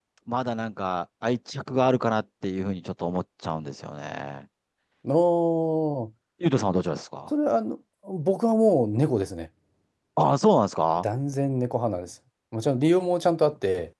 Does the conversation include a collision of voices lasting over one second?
No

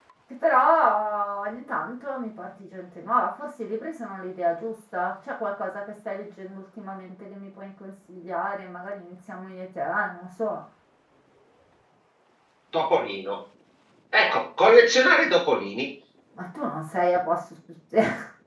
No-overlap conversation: Yes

